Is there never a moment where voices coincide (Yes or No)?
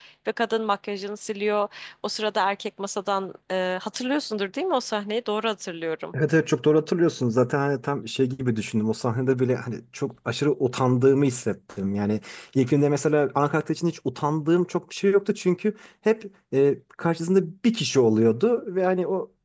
Yes